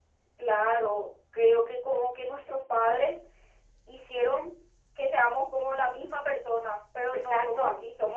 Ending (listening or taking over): listening